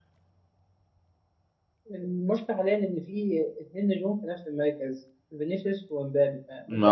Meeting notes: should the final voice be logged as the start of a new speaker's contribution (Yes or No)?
No